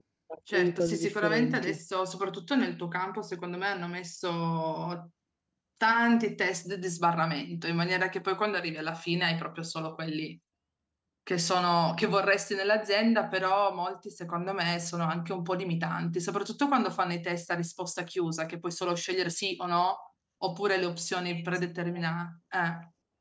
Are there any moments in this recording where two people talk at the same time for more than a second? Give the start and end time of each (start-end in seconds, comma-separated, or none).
0.5-1.8